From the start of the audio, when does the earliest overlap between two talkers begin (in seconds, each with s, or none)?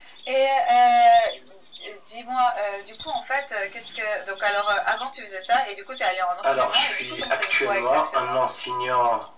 6.4 s